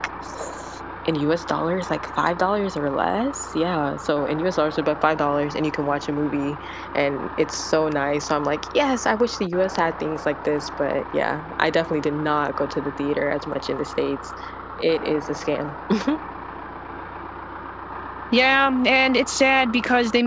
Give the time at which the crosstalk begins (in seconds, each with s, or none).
none